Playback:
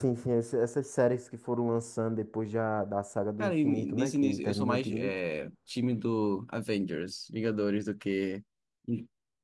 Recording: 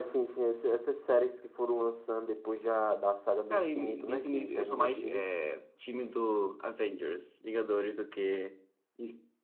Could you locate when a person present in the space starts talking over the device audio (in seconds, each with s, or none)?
none